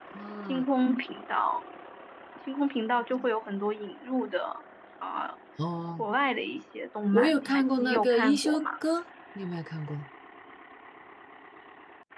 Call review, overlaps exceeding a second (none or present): present